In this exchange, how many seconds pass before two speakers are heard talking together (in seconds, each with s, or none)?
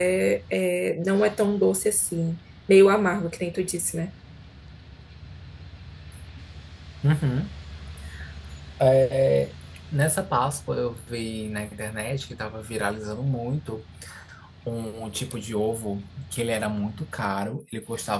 none